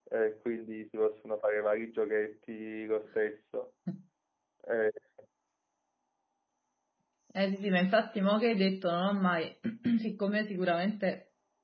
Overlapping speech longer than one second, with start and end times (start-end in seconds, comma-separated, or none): none